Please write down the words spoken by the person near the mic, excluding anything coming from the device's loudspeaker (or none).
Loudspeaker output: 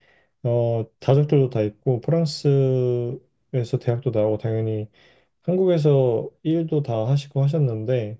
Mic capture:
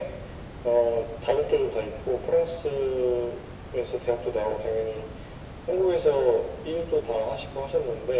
none